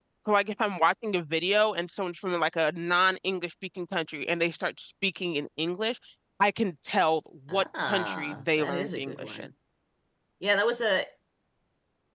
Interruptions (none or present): present